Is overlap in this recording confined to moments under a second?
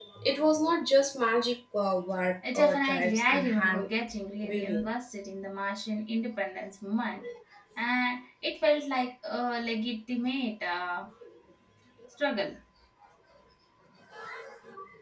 No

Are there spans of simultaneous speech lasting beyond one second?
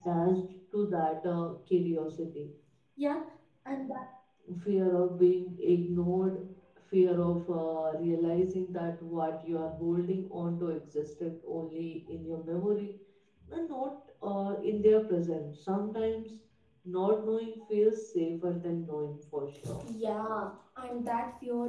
No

